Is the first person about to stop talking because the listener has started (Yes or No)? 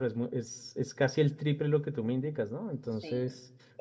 Yes